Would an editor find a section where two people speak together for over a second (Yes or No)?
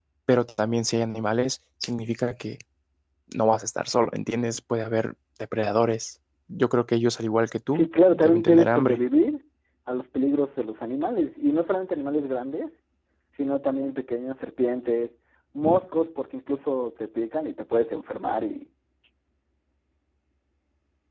Yes